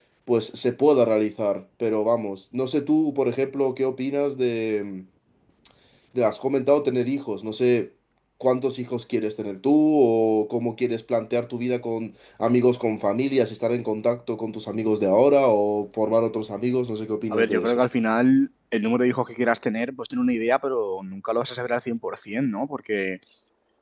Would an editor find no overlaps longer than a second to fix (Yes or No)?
Yes